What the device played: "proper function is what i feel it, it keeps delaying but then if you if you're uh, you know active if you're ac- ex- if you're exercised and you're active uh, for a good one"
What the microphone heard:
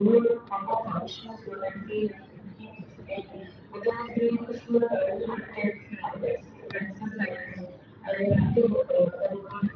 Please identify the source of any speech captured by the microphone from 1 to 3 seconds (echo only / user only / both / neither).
echo only